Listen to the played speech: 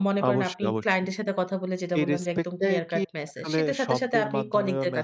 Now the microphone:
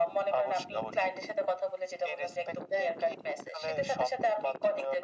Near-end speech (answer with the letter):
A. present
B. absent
B